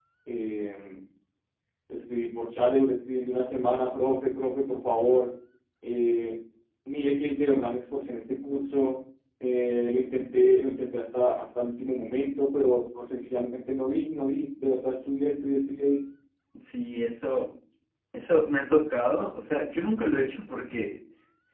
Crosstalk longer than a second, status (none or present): none